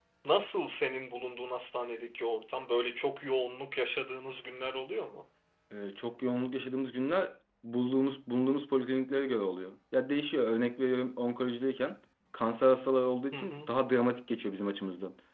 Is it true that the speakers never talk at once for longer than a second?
Yes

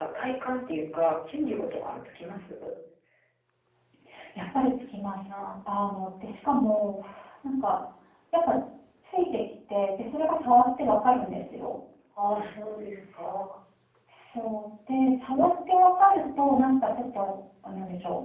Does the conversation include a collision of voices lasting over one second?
No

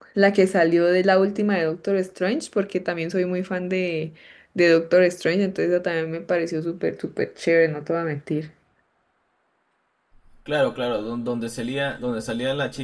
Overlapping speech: No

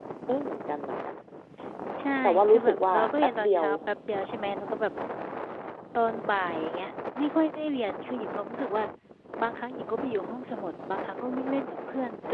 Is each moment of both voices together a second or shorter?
No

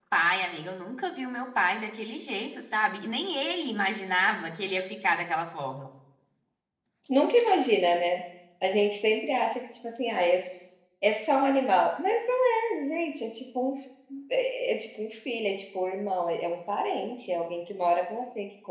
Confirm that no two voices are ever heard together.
Yes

